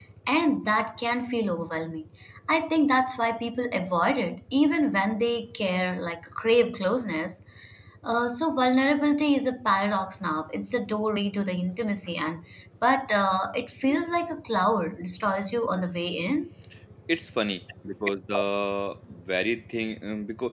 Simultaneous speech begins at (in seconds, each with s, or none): none